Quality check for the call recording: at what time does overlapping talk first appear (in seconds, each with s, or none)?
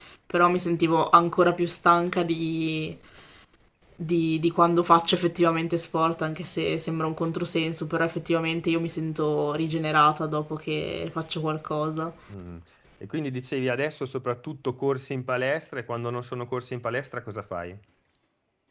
none